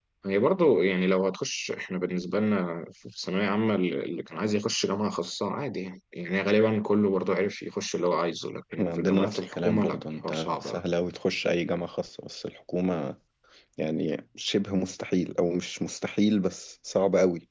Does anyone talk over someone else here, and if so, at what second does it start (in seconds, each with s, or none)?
8.7 s